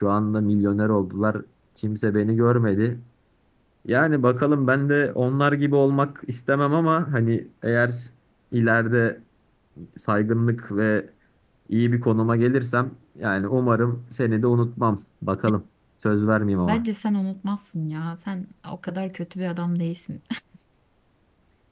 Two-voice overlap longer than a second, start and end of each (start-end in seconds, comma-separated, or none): none